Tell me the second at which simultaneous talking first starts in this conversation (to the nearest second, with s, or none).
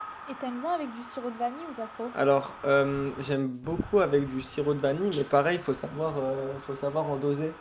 none